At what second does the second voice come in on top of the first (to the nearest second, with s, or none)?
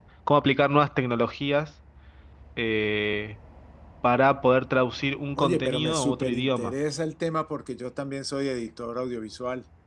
5 s